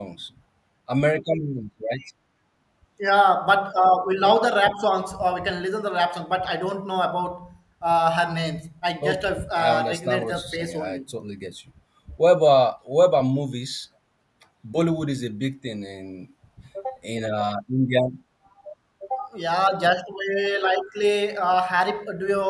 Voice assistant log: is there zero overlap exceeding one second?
No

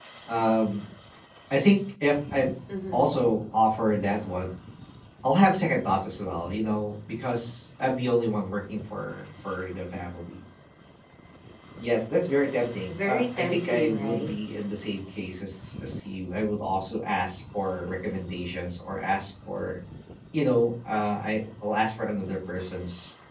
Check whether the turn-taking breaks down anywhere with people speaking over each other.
Yes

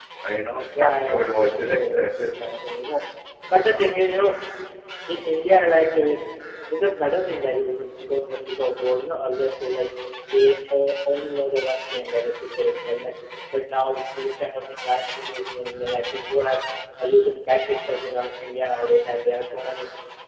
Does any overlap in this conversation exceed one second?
Yes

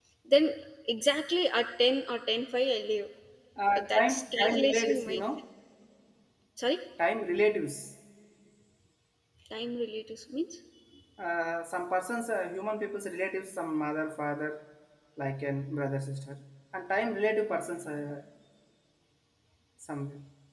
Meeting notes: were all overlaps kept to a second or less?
No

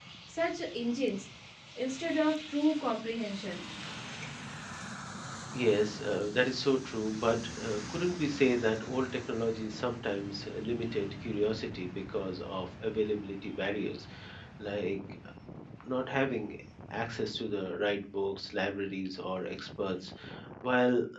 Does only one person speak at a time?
Yes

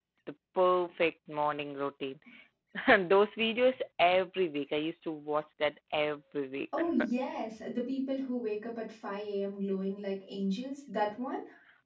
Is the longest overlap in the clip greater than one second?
No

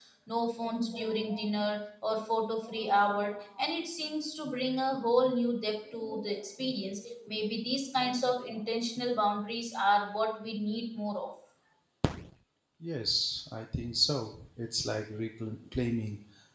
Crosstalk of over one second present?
No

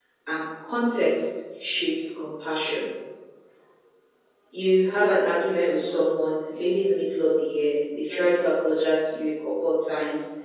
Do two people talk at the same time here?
No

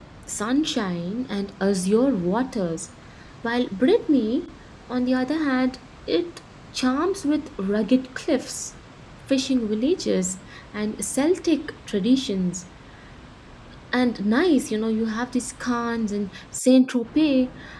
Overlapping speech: No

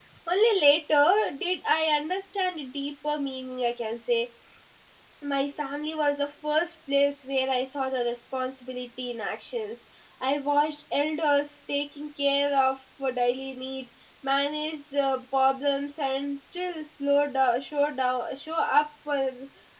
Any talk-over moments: No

